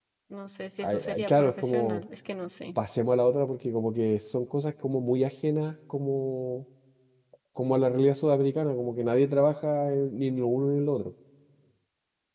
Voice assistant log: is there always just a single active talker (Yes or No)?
No